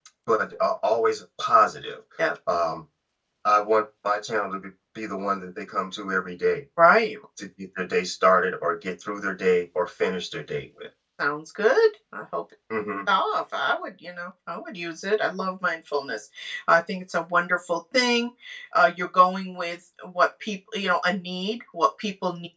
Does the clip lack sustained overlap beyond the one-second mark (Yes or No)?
Yes